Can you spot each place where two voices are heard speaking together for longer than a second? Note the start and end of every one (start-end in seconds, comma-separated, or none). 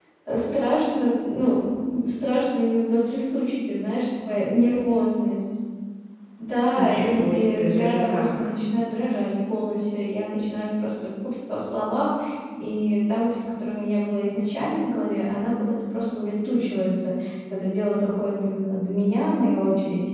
6.8-8.3